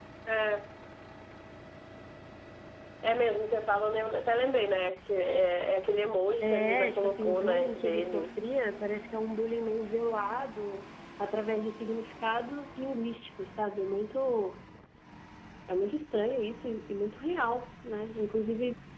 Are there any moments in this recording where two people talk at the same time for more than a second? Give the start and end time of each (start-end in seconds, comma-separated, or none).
6.4-8.3